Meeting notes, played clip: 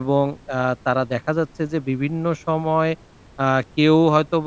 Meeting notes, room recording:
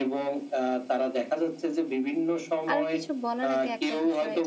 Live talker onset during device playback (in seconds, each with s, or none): 2.7 s